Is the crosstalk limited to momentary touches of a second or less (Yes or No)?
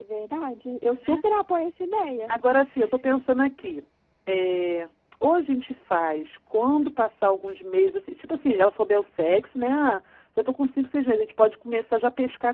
Yes